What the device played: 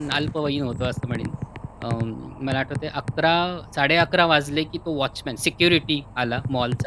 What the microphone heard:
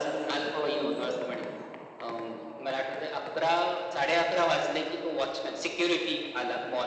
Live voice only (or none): none